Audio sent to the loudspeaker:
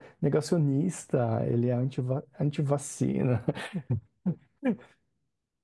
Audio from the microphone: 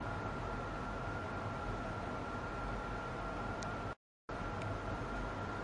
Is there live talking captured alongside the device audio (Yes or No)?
No